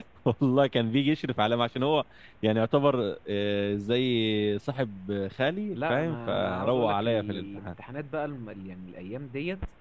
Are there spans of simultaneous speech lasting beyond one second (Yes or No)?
Yes